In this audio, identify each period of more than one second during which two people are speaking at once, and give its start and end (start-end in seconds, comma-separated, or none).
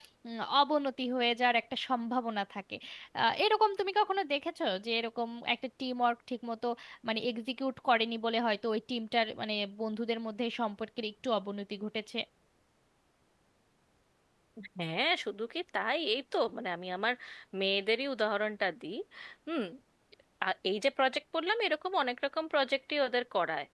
none